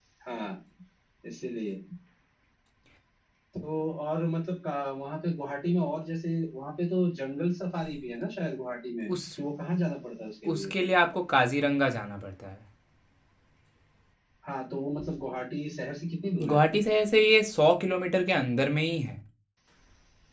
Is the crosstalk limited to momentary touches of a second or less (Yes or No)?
Yes